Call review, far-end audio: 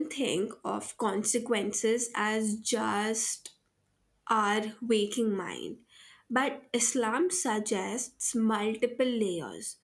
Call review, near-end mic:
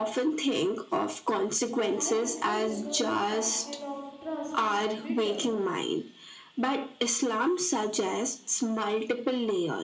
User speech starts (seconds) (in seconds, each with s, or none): 1.7 s